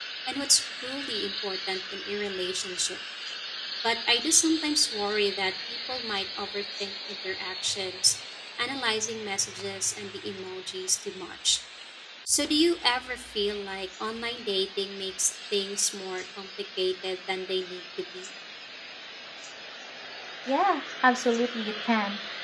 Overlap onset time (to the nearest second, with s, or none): none